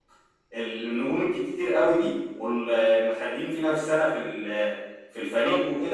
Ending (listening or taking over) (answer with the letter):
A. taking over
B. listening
B